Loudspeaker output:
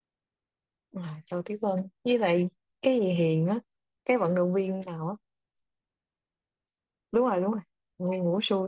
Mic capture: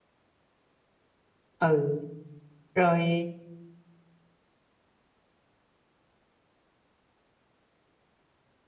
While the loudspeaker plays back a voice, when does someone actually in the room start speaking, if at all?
1.6 s

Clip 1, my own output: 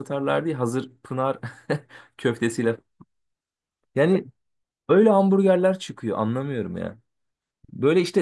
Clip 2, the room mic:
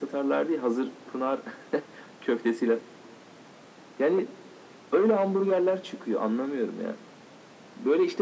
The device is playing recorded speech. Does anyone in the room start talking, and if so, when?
none

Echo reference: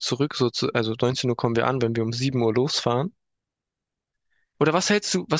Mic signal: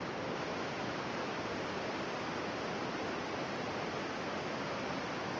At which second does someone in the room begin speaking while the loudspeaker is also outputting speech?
none

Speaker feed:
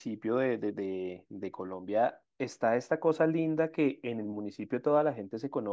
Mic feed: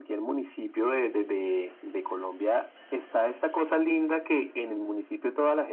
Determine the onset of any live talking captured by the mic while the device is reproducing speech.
none

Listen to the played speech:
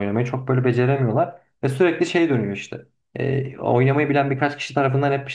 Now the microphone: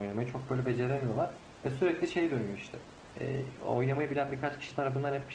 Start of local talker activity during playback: none

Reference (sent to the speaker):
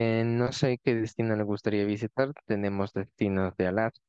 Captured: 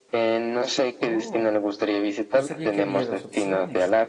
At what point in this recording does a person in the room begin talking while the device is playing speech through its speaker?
1.0 s

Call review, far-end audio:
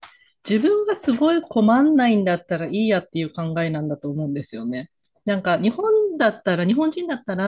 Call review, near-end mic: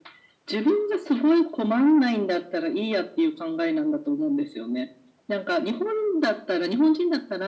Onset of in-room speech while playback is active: none

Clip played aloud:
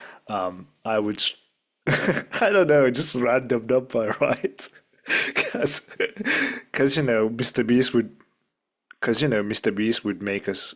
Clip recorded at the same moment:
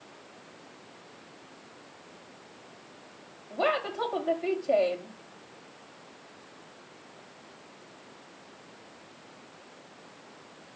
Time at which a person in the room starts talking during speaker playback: 3.5 s

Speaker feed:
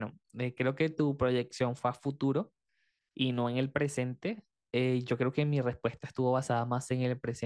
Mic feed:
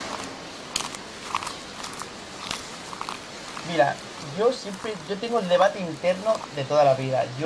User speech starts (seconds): 3.6 s

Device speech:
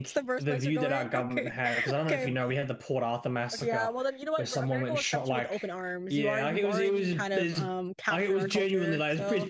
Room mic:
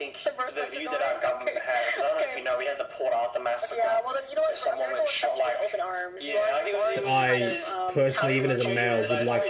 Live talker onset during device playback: 6.9 s

